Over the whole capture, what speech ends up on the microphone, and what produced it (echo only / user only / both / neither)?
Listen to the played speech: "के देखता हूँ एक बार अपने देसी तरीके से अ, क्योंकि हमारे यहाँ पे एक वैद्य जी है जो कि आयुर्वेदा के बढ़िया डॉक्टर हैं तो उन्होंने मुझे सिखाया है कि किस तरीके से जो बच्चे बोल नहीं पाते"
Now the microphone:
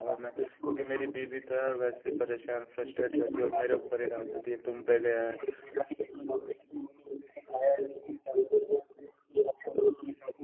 both